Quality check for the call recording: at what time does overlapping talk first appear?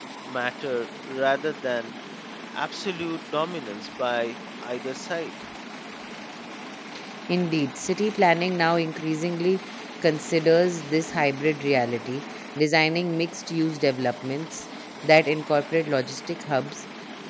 none

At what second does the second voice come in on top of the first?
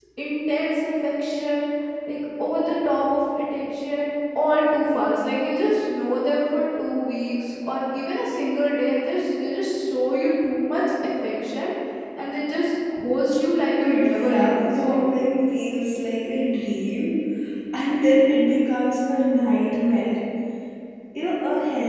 13.8 s

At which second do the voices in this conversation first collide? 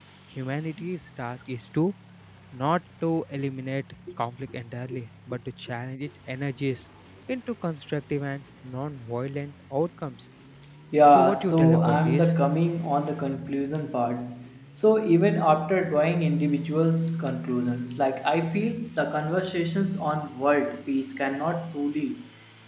11.1 s

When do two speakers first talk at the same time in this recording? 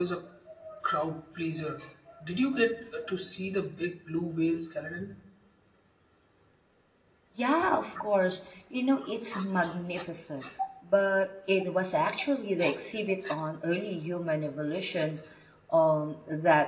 none

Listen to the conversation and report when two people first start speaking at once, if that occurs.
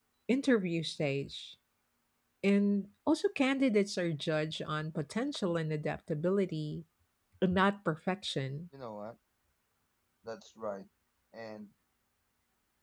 none

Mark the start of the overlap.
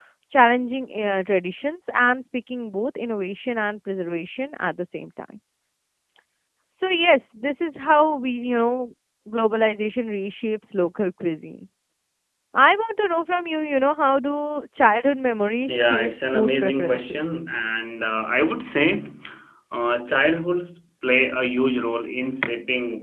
15.7 s

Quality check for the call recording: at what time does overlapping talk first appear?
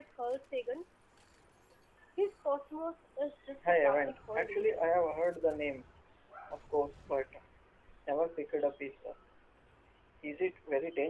3.6 s

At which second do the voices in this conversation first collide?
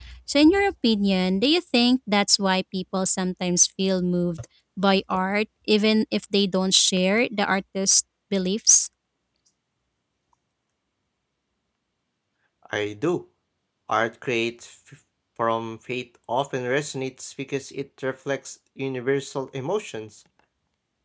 none

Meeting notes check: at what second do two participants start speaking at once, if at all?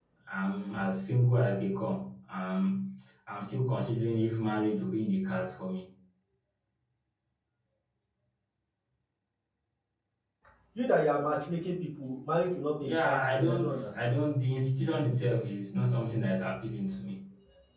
12.8 s

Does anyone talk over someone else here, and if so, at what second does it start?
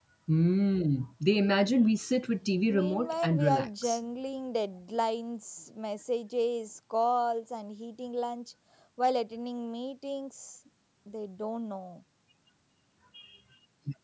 2.7 s

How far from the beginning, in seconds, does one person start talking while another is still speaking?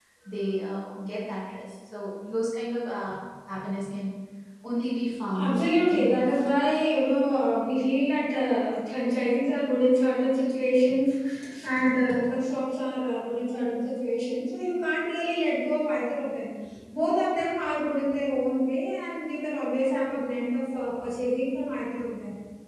5.3 s

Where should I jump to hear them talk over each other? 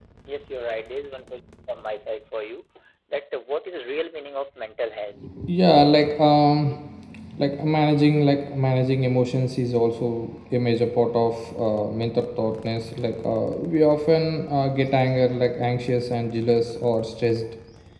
none

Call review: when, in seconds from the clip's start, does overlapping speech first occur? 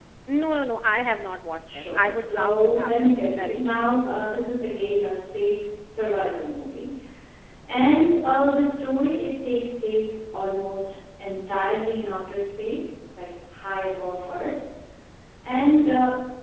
1.7 s

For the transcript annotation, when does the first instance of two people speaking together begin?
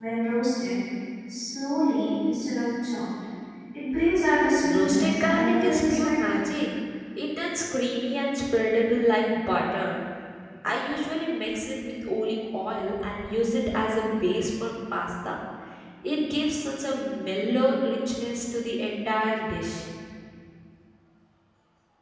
4.6 s

